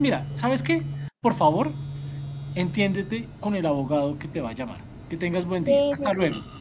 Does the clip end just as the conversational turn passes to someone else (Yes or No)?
Yes